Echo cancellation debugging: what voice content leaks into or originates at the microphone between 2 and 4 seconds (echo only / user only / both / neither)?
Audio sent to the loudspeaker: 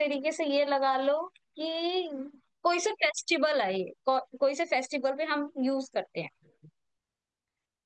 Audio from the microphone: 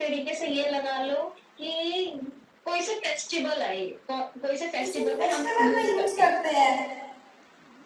echo only